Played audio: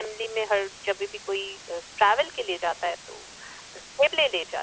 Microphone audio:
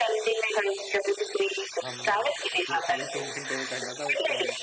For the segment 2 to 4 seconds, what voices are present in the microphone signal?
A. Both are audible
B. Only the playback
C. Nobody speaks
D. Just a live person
A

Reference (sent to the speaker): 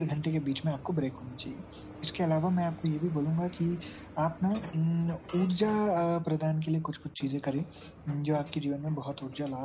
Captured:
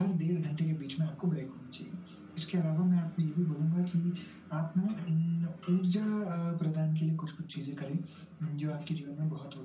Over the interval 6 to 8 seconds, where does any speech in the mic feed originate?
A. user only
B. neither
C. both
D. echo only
D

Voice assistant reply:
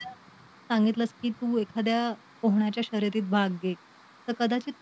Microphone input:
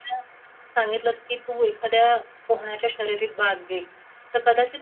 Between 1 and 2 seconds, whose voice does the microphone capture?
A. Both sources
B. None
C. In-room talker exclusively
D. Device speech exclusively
D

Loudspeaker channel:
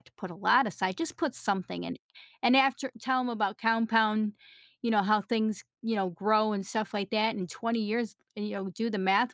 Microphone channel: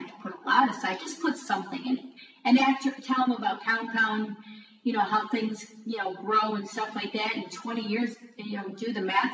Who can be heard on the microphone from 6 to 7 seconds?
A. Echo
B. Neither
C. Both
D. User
A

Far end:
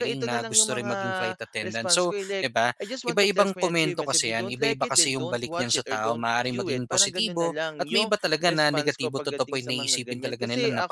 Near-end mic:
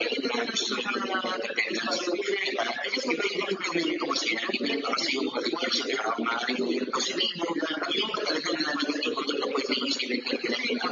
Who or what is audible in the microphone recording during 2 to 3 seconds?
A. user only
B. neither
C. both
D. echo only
D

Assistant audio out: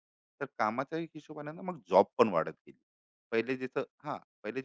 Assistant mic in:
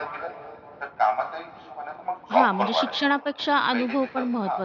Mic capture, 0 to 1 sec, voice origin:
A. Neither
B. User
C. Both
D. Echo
D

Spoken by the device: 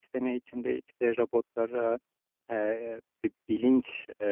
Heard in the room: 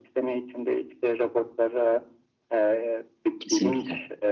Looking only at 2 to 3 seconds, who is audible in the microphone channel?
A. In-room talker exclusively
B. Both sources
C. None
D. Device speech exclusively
D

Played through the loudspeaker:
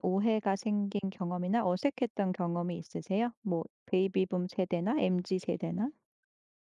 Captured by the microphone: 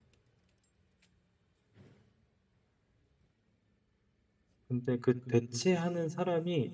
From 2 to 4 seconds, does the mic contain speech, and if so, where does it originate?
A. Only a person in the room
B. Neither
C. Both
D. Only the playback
B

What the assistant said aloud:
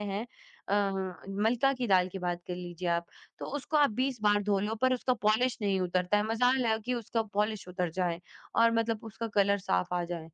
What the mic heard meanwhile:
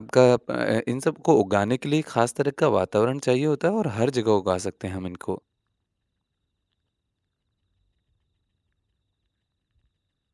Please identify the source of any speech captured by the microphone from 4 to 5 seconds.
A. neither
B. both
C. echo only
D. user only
D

